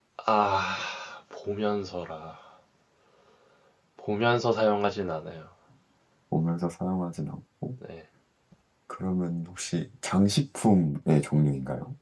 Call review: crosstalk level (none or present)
none